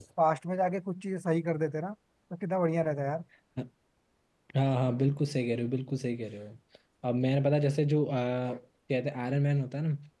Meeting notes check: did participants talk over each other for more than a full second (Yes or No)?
No